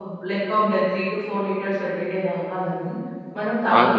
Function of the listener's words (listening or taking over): taking over